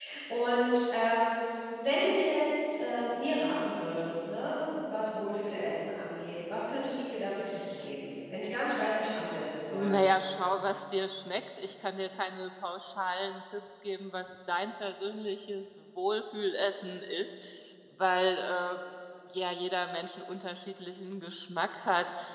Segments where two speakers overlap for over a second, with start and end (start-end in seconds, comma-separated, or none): none